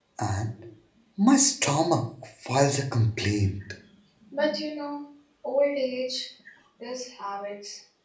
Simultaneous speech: No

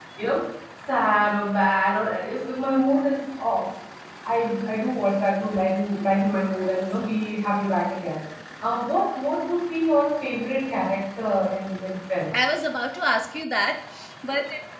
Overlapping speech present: No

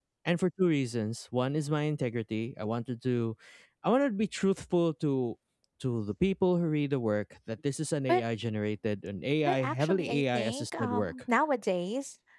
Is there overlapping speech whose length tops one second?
Yes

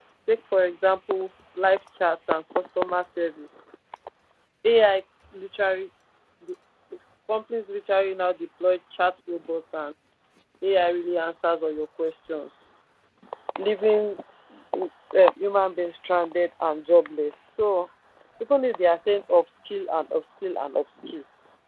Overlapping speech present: No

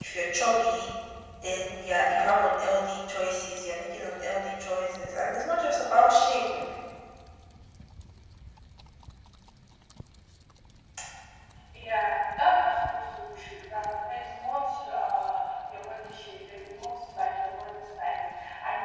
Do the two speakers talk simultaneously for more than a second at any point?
No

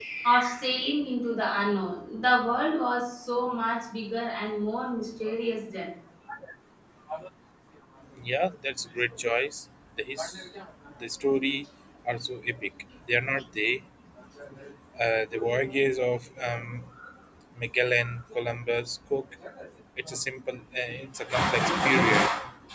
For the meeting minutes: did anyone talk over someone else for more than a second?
No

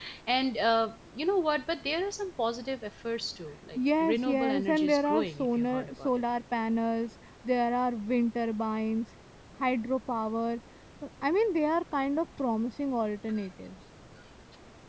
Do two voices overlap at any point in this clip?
Yes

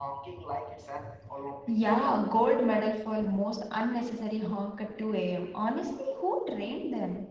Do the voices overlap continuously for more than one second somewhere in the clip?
No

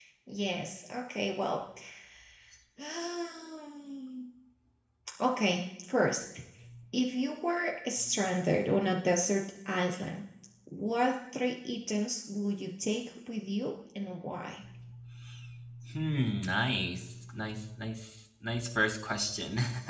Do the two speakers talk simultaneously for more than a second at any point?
No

